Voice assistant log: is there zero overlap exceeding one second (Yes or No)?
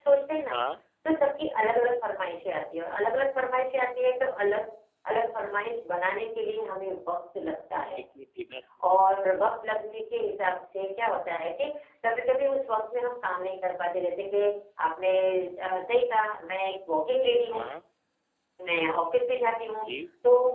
Yes